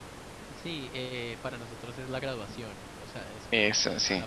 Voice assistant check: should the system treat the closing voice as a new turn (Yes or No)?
No